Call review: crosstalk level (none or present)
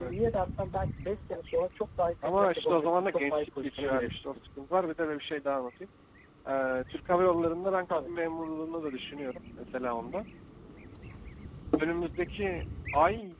present